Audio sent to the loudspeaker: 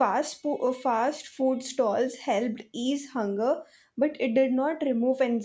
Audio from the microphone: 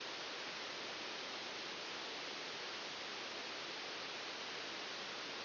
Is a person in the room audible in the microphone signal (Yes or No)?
No